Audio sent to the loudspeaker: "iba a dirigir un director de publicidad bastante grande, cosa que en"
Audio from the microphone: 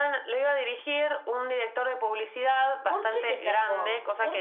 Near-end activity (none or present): present